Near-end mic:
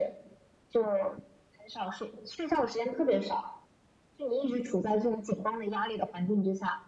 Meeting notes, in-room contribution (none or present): none